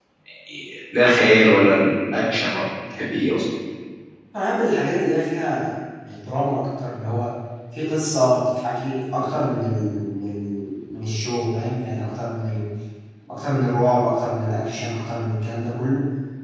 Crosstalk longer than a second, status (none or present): none